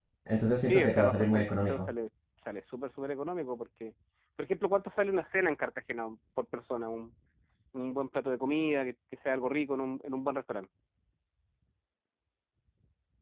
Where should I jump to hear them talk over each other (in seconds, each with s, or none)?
0.6 s